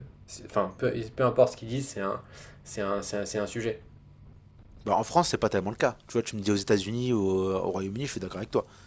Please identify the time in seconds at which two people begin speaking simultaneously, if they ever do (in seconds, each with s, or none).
none